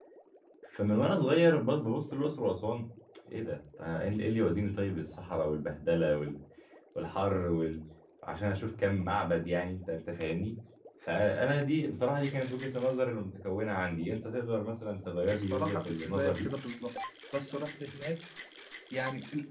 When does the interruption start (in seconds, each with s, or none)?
15.3 s